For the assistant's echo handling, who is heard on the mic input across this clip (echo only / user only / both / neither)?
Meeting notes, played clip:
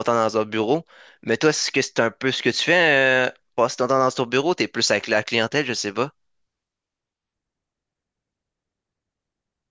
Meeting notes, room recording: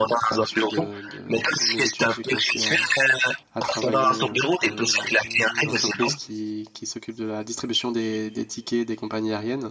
both